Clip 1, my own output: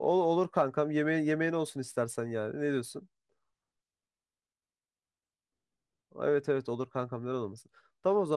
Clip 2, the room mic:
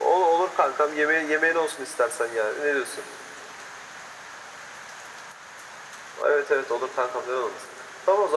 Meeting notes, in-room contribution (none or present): none